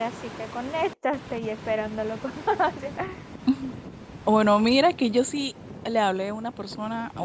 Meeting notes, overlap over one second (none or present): none